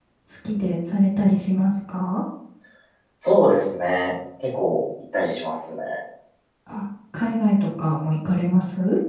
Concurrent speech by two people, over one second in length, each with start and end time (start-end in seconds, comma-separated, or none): none